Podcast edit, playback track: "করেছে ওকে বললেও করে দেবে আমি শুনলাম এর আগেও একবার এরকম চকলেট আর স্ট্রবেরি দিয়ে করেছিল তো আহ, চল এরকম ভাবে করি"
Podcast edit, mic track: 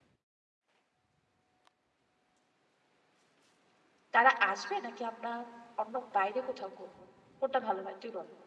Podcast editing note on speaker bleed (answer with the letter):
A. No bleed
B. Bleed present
A